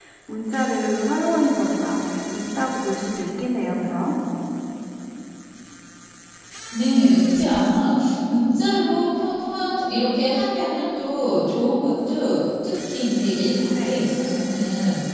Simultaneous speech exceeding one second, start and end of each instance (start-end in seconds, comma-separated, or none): none